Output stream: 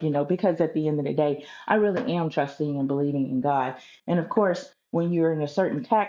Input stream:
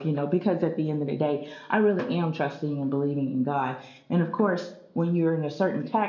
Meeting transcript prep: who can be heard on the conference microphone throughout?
echo only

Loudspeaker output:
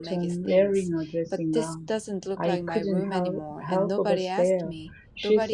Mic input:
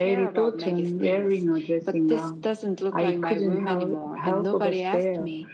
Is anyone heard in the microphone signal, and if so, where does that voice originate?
echo only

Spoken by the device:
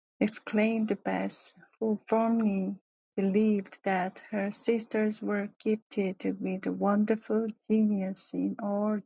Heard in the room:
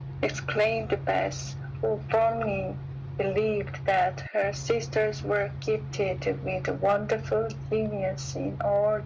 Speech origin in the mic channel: echo only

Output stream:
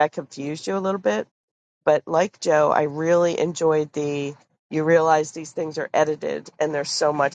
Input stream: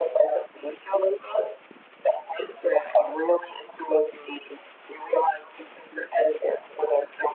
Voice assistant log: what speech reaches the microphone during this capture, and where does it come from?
echo only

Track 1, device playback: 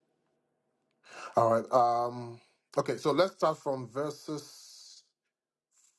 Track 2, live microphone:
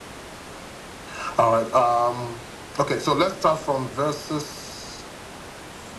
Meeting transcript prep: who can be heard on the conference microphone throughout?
echo only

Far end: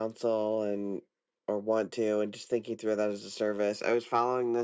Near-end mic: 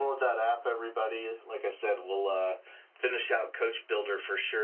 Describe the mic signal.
user only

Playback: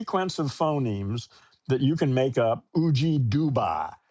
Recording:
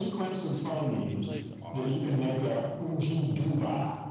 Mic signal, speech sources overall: both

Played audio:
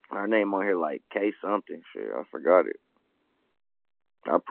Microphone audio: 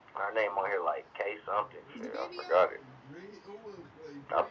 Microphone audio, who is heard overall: both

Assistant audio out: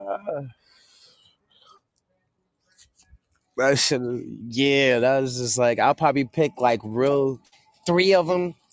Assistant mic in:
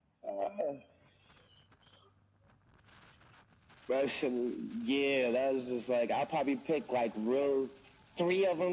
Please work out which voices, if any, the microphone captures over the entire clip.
echo only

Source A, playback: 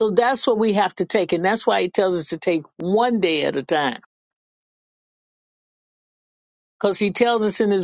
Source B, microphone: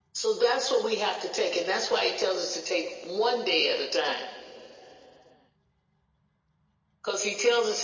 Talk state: echo only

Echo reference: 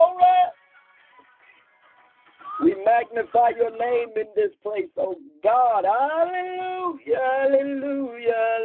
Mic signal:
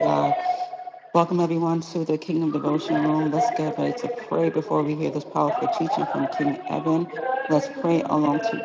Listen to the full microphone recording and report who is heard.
both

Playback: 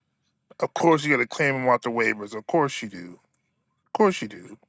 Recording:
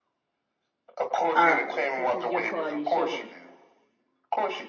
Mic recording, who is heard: both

